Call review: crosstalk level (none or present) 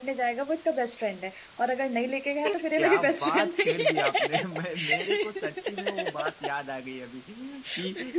present